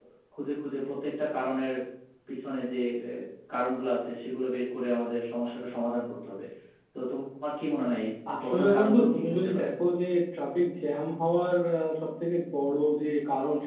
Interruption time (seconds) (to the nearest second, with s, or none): 8 s